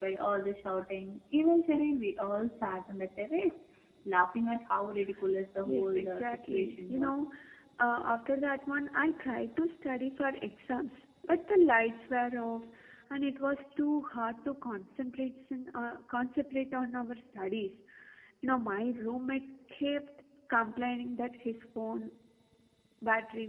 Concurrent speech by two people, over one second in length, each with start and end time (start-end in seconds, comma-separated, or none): 5.6-7.2